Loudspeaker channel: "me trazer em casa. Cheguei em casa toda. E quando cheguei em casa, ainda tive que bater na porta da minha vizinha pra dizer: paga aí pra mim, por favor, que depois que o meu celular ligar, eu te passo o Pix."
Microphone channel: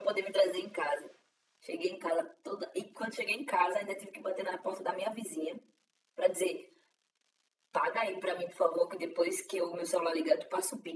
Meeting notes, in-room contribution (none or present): none